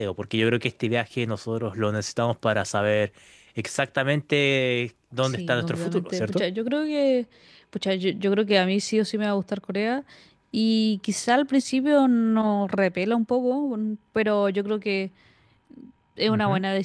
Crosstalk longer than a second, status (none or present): present